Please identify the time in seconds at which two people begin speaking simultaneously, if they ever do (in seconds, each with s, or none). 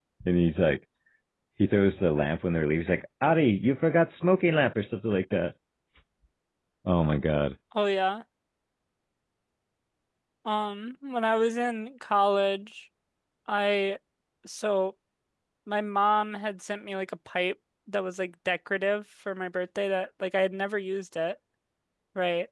none